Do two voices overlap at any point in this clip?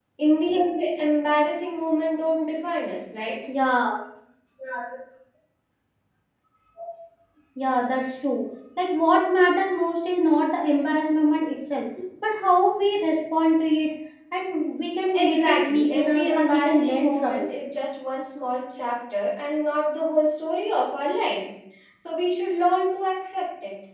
Yes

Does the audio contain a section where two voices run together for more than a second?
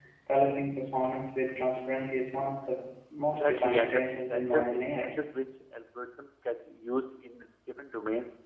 Yes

